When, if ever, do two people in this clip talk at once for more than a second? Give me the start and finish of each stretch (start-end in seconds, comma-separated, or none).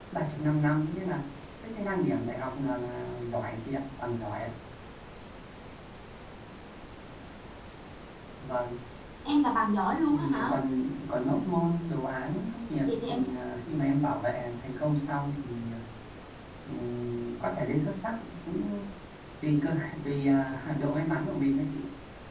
none